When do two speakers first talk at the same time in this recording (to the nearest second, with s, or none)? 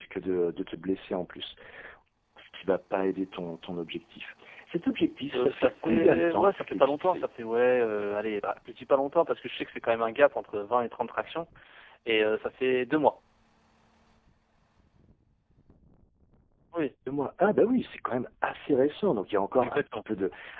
5 s